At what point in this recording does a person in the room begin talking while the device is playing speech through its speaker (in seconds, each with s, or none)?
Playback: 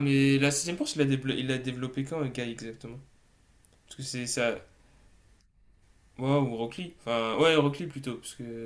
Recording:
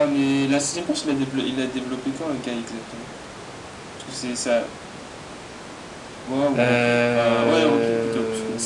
6.6 s